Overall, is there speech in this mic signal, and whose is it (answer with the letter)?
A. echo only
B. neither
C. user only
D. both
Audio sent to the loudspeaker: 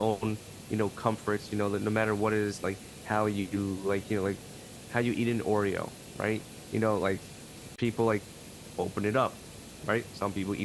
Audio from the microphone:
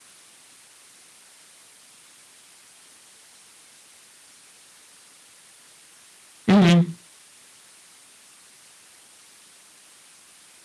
C